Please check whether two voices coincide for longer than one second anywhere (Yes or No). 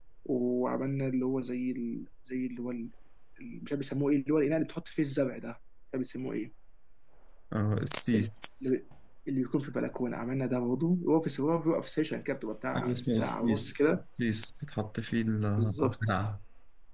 Yes